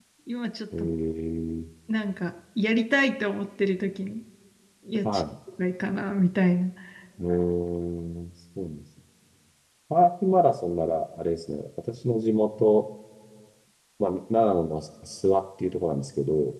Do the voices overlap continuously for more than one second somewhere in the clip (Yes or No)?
No